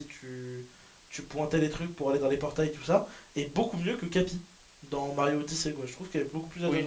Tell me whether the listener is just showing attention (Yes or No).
No